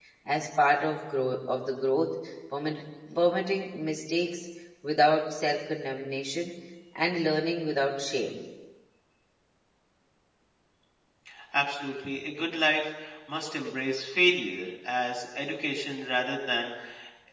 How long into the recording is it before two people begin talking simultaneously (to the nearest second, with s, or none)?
none